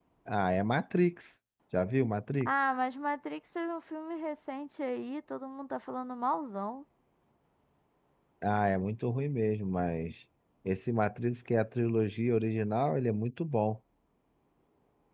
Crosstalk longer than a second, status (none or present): none